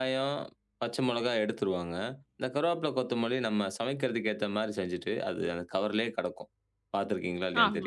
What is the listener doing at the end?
taking over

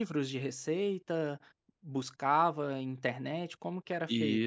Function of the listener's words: taking over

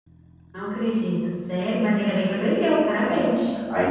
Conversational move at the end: taking over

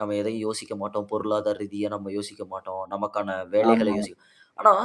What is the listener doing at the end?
listening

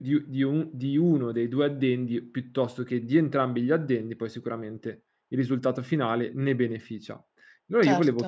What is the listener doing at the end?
listening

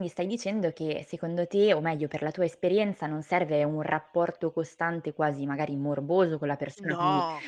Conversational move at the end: listening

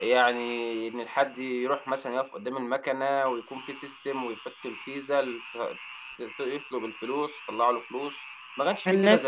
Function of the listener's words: taking over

